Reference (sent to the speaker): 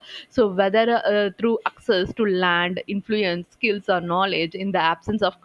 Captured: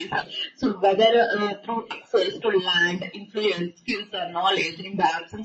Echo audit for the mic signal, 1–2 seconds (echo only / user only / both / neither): echo only